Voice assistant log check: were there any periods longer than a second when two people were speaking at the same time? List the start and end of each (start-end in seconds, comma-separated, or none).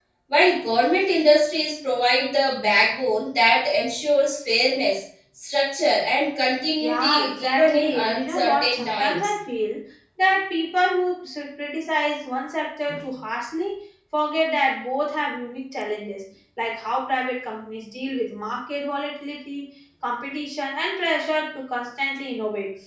6.8-9.3